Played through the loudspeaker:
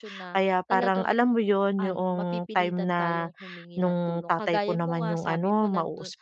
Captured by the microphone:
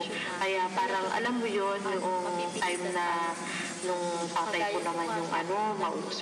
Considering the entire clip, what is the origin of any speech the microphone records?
echo only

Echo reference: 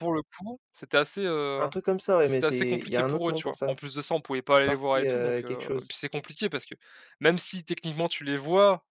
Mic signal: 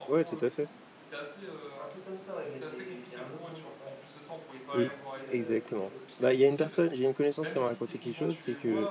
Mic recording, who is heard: both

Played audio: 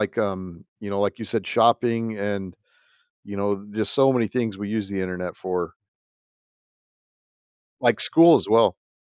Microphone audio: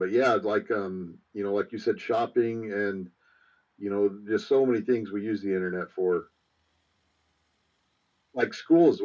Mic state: echo only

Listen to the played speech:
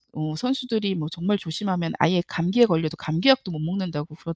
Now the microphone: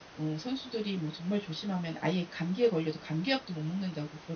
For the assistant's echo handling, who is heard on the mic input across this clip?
echo only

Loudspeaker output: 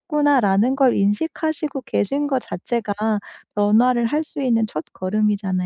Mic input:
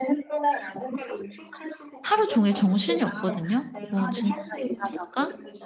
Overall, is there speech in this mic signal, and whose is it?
both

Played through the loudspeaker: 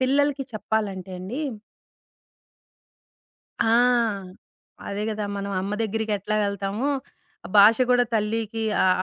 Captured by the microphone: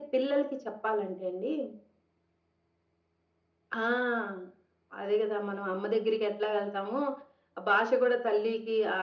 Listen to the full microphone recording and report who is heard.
echo only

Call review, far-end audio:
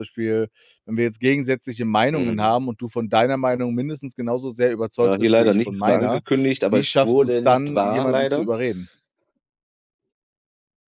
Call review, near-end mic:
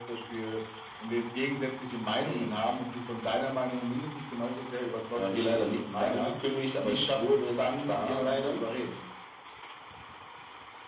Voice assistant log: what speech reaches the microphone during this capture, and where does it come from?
echo only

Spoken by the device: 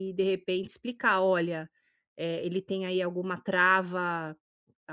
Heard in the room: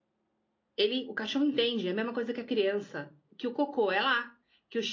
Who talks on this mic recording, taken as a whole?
user only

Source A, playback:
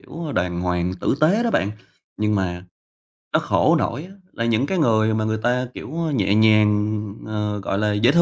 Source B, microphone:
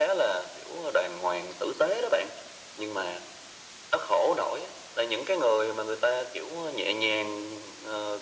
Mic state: echo only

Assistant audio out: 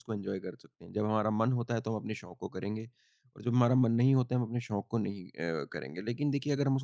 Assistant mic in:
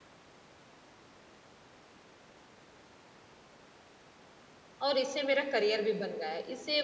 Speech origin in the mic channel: user only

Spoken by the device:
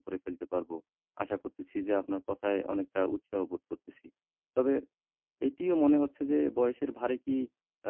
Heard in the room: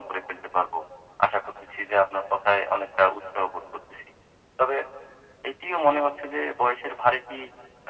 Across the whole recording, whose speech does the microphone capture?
echo only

